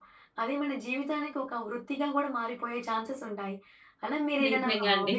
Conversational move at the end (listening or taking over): listening